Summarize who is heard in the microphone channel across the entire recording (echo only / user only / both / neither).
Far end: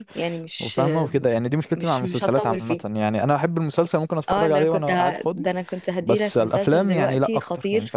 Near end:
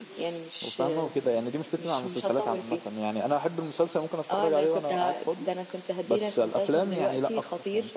echo only